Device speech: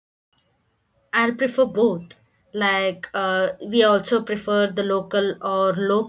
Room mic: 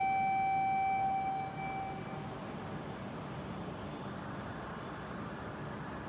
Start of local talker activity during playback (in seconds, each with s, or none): none